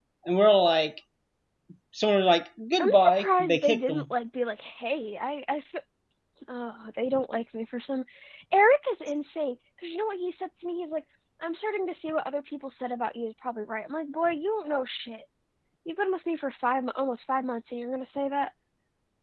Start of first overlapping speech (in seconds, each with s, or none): 2.8 s